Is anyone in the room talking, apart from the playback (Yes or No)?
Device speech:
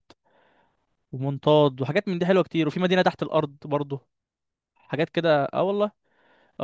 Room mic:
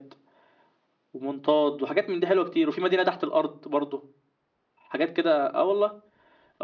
No